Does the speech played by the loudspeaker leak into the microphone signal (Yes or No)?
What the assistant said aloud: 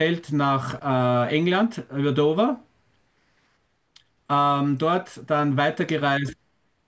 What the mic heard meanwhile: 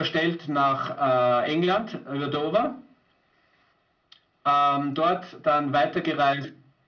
Yes